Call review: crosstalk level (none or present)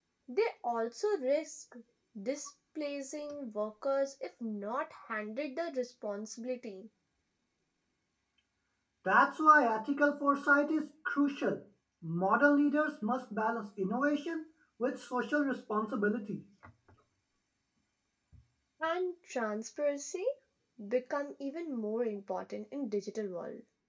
none